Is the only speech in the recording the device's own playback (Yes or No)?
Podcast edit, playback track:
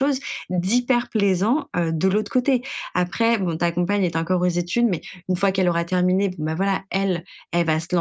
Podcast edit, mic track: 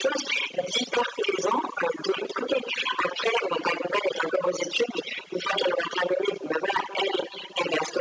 Yes